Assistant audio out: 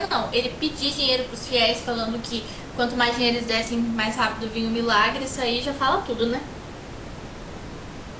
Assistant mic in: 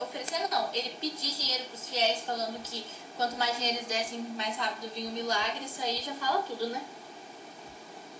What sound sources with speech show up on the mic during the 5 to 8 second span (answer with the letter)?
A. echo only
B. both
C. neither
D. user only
A